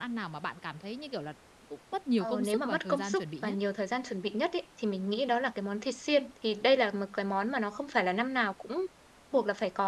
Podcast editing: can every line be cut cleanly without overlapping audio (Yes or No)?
No